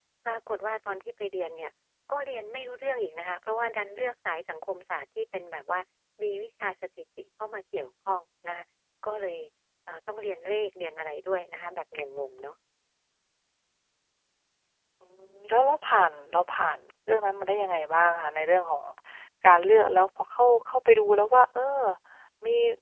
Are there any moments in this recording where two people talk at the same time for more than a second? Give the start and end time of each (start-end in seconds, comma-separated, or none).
none